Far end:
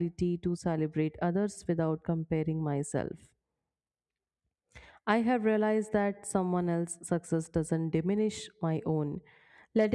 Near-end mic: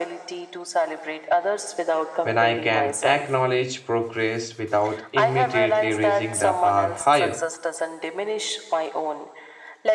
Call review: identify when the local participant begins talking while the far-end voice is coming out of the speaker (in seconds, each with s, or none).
2.2 s